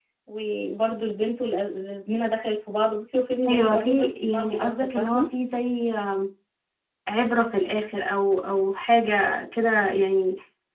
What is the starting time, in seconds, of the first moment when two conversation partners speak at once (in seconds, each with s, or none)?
3.5 s